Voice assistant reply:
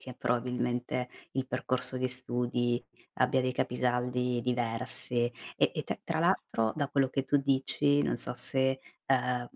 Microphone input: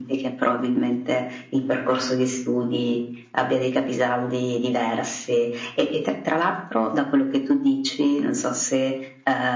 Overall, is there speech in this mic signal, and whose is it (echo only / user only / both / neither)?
echo only